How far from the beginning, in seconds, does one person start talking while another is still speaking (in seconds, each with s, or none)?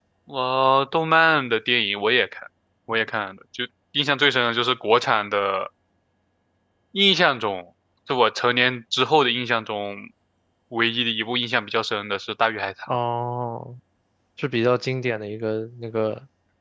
none